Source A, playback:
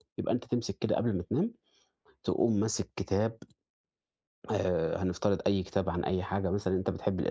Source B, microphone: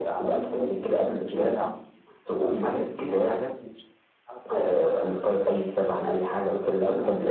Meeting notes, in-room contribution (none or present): present